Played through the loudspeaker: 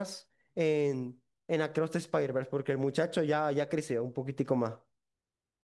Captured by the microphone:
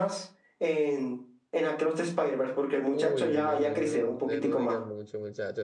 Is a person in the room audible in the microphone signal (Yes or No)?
Yes